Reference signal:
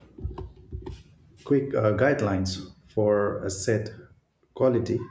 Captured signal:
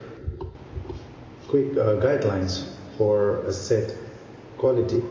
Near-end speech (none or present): none